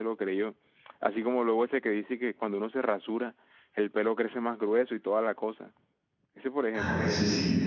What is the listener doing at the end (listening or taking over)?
taking over